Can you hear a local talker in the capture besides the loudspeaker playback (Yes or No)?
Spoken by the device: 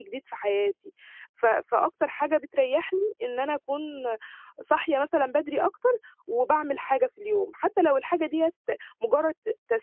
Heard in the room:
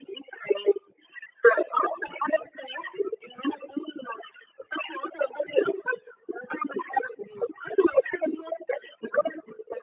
No